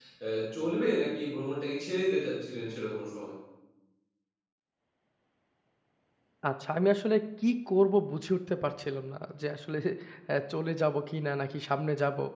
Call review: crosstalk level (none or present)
none